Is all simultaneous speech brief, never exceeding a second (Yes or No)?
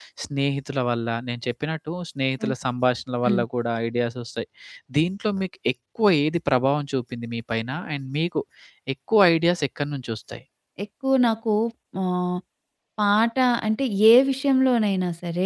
Yes